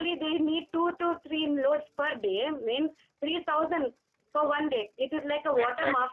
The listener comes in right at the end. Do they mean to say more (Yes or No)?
Yes